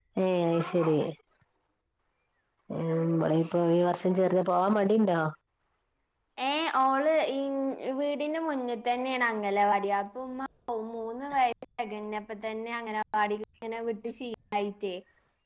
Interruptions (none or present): none